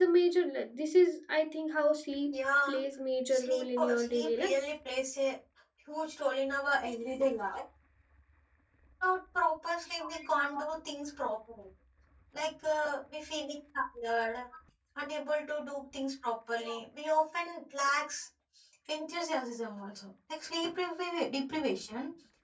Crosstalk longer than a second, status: present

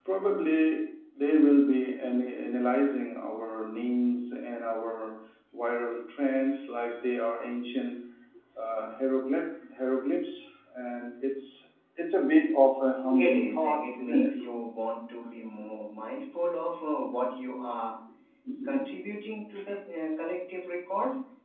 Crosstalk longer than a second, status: present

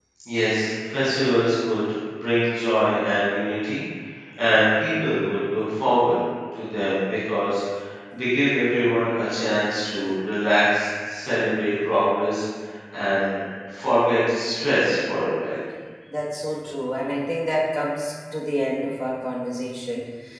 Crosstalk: none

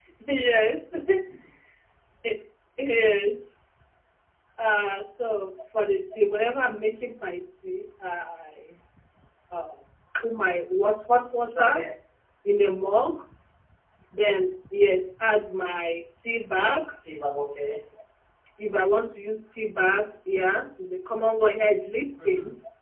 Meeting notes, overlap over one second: none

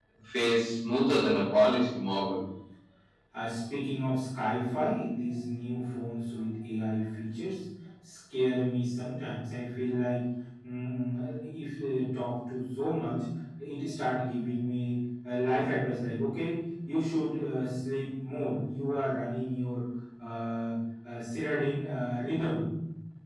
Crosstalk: none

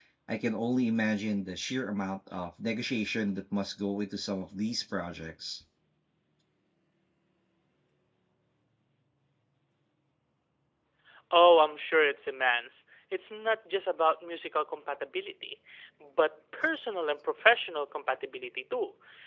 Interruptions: none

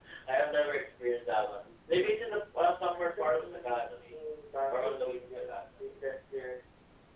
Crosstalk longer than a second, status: present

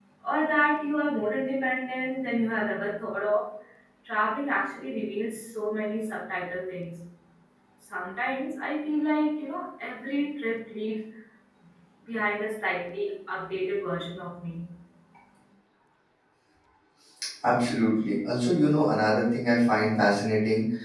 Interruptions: none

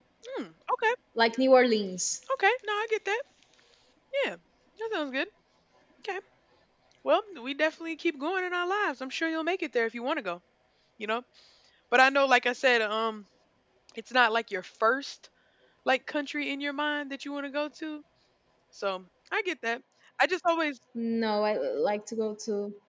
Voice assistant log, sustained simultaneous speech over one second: none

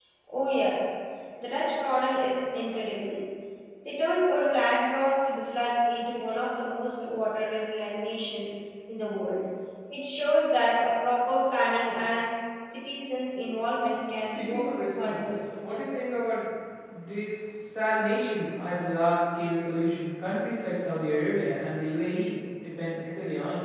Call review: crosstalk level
present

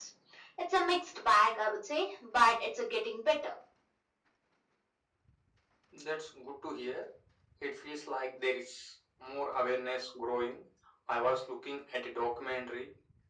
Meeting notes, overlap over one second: none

